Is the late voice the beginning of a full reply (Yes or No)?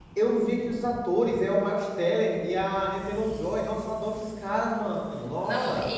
Yes